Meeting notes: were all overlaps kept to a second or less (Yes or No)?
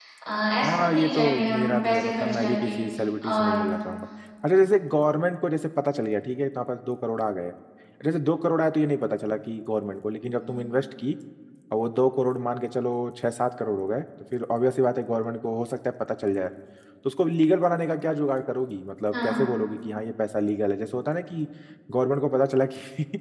No